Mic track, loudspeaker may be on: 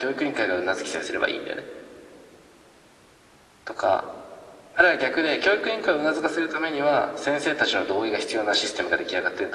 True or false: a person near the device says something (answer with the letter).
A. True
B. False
B